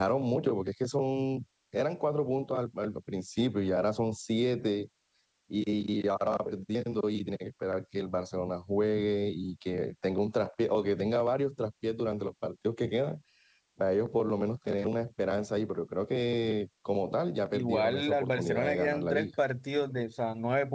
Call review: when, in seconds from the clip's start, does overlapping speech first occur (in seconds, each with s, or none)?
17.5 s